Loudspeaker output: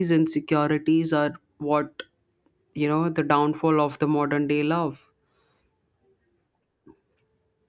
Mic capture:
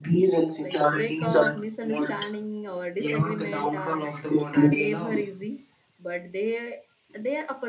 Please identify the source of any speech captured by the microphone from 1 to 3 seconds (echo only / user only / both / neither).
both